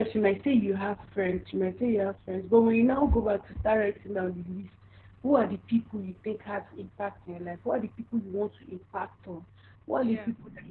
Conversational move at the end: listening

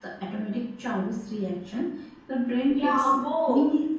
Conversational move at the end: taking over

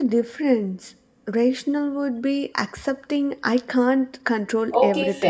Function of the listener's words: taking over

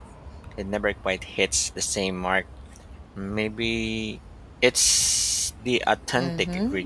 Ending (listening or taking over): taking over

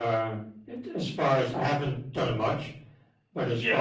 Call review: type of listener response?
listening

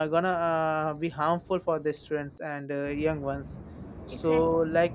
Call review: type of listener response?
listening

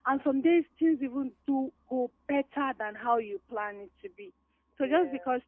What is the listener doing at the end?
listening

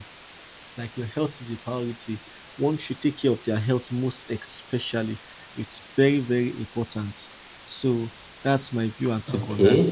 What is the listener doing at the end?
taking over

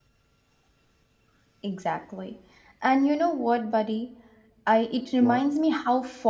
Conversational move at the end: listening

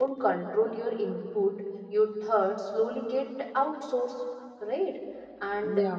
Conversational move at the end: listening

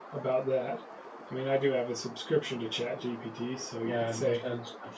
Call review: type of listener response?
taking over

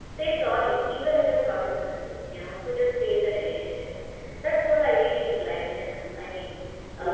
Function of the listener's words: listening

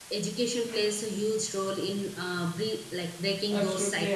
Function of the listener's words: taking over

